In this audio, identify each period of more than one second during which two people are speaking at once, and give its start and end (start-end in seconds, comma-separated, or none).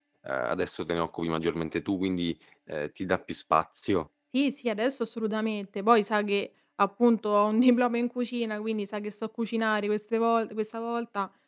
none